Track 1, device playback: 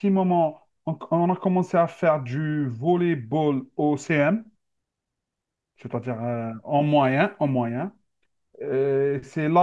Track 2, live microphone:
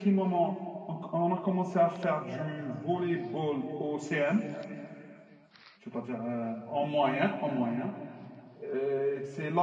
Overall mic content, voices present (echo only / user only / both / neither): echo only